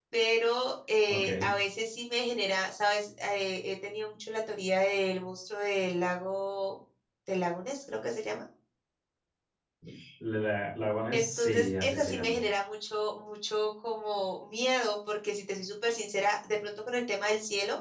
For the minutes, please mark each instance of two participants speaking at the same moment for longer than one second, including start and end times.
11.1-12.4

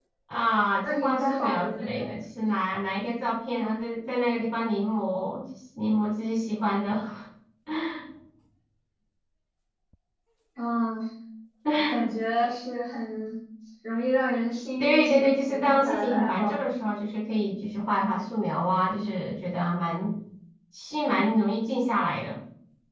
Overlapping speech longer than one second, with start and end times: 0.8-2.1, 14.8-16.7

